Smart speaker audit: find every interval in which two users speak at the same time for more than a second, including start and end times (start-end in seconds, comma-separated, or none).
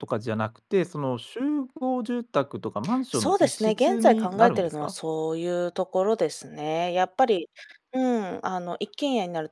3.1-4.9